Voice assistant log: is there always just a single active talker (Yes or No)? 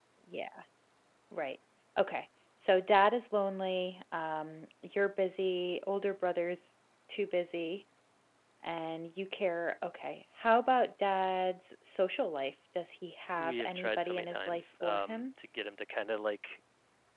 No